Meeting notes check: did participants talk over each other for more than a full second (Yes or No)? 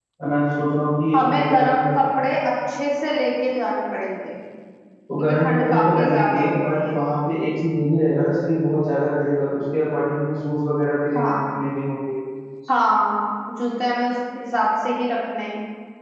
Yes